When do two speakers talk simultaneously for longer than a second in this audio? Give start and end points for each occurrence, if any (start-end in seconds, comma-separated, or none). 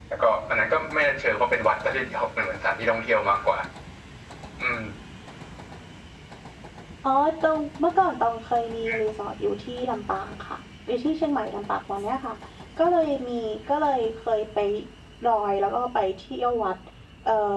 none